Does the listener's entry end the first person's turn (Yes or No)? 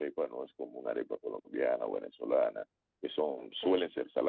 No